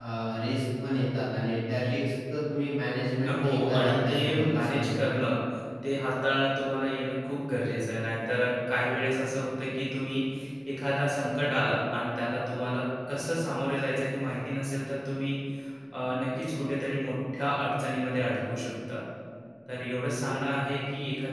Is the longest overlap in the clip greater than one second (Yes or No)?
Yes